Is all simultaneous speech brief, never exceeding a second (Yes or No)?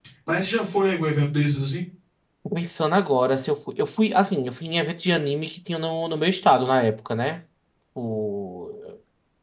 Yes